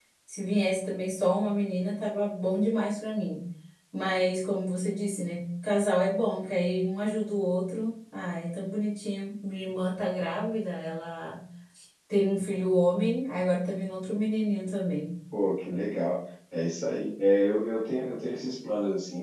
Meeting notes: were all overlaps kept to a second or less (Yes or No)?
Yes